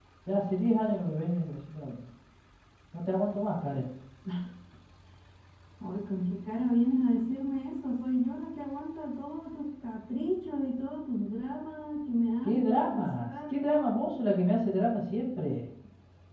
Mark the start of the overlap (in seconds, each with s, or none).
12.4 s